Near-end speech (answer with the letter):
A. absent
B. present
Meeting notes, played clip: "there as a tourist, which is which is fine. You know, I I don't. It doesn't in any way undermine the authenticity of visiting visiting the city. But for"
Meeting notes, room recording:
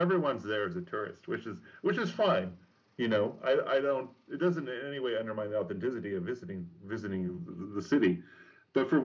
A